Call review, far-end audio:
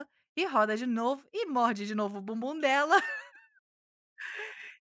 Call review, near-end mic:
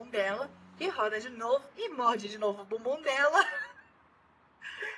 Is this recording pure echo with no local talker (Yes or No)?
Yes